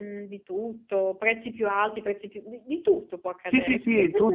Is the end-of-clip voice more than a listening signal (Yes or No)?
Yes